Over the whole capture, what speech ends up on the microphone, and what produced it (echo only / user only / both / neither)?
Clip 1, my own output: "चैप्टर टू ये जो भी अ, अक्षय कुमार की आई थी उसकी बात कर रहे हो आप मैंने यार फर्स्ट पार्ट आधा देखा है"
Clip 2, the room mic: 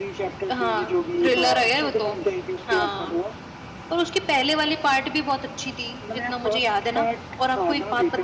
both